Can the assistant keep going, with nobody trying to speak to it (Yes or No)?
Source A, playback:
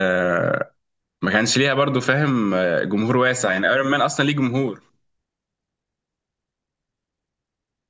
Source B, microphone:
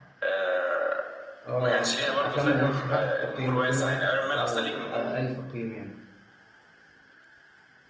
No